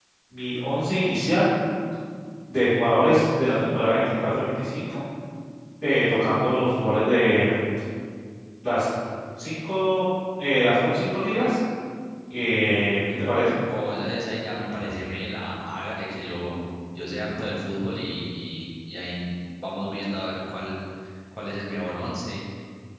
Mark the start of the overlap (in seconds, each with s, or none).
none